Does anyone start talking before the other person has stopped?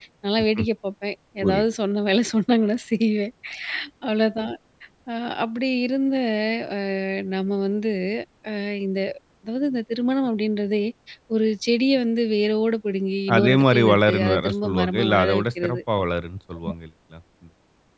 Yes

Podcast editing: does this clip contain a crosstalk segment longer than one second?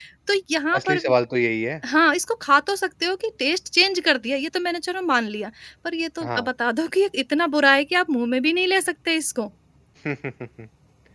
No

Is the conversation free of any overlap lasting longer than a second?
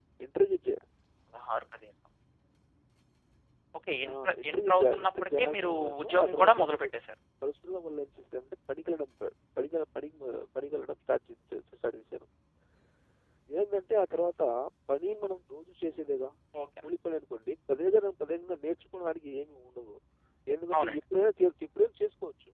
No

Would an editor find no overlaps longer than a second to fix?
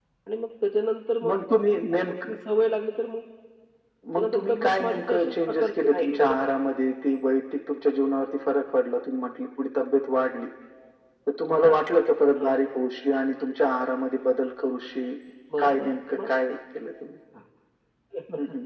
No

